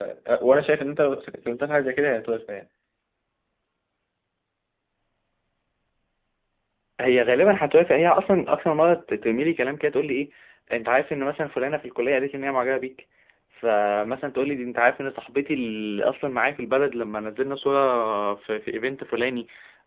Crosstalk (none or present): none